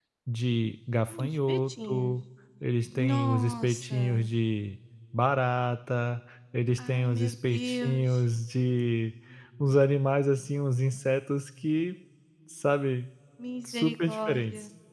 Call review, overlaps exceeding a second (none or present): present